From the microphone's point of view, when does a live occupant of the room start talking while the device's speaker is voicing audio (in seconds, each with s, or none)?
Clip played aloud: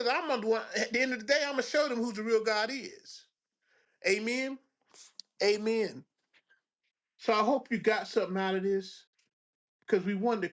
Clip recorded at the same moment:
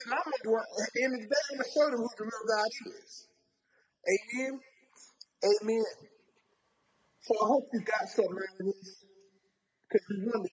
none